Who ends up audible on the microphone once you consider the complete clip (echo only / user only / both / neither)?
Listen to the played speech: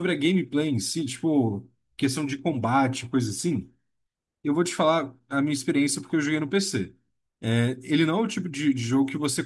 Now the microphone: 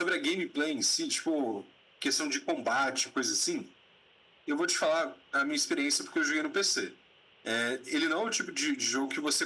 echo only